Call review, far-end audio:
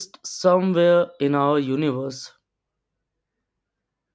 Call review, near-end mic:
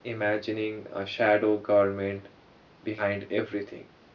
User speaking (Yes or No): Yes